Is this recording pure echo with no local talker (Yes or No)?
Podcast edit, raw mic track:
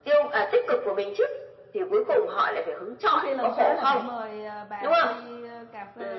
No